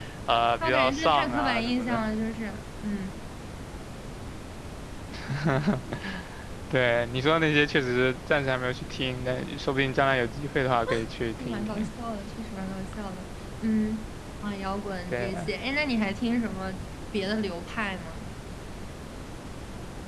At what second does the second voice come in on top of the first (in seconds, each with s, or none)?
0.6 s